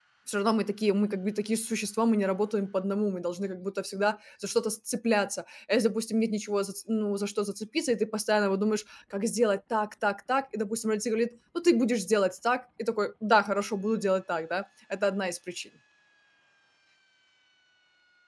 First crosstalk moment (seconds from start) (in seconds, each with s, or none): none